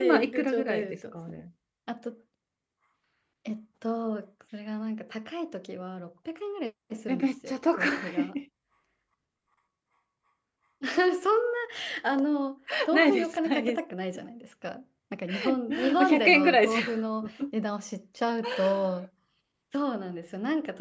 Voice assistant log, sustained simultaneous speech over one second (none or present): present